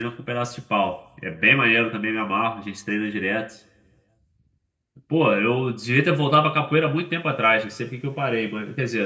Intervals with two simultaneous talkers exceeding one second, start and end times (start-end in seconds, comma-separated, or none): none